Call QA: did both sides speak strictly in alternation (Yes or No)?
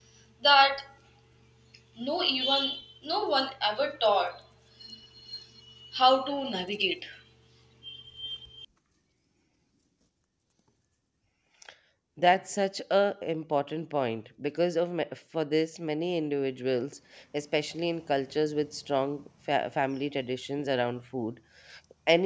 Yes